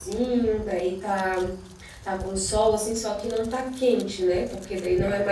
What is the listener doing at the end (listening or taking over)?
taking over